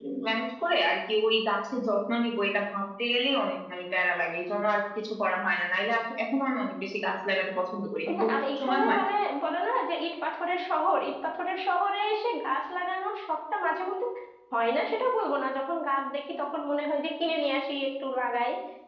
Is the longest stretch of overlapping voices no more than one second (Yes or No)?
Yes